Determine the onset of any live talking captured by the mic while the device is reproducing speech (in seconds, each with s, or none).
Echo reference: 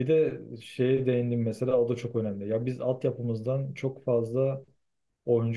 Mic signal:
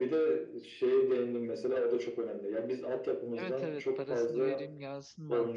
3.3 s